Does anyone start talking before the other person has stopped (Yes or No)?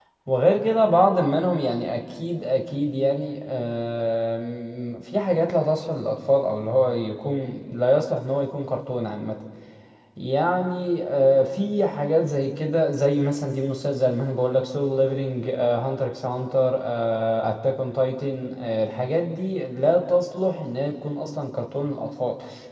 No